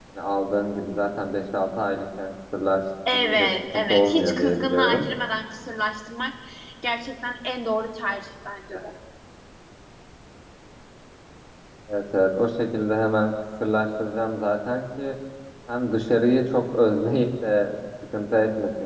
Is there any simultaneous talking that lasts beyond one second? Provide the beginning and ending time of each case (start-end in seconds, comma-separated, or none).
3.1-5.1